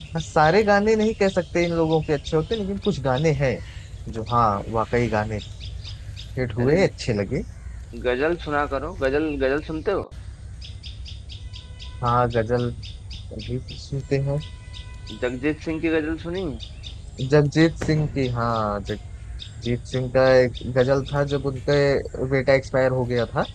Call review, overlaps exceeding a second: none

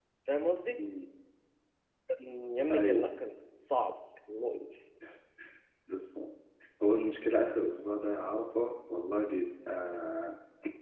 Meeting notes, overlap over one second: none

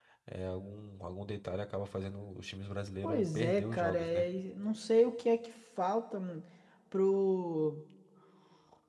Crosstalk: present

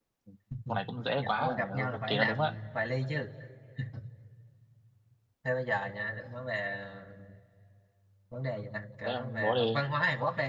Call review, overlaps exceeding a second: present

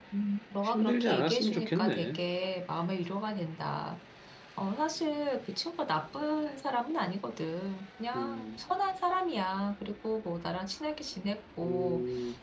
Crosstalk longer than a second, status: present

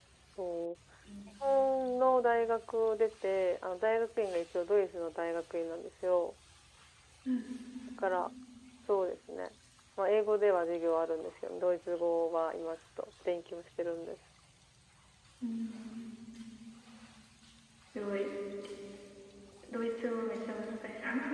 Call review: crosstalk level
none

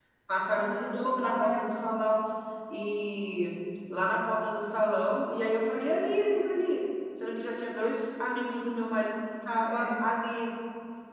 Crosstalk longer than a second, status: present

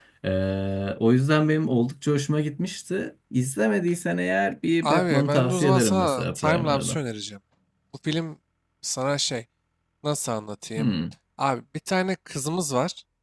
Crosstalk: present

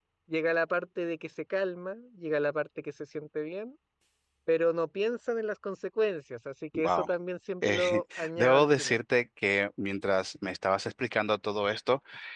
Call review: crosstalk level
present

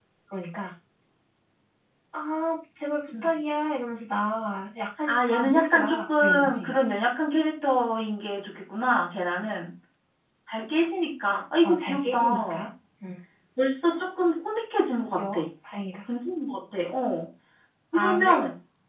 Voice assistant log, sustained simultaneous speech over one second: present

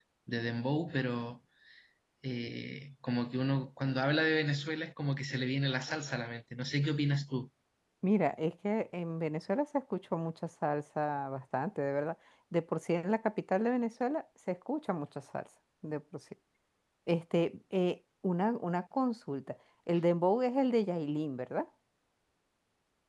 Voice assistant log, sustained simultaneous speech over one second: none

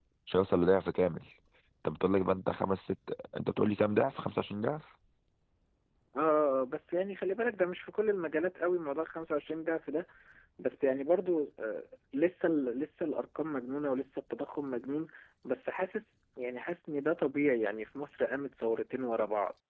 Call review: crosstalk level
none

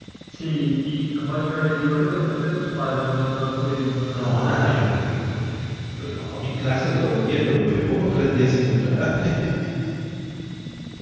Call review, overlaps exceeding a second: none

